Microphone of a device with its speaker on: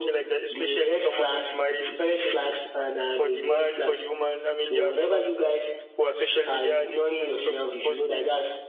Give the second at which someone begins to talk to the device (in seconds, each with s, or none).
none